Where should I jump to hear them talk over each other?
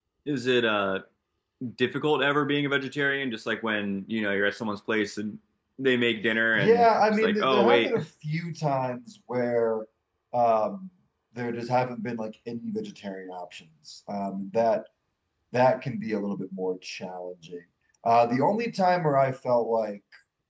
6.5 s

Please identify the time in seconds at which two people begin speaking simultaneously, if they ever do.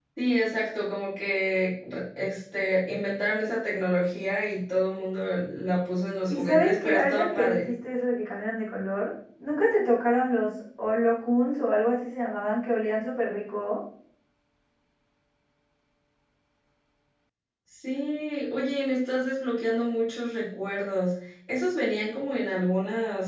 6.3 s

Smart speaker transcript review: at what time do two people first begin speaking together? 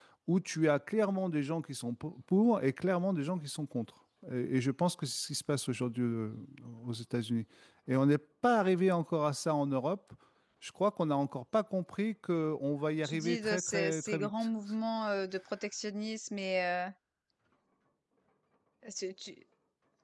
13.0 s

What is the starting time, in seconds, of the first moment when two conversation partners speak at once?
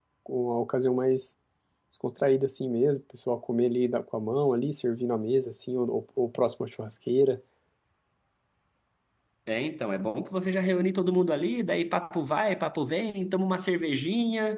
none

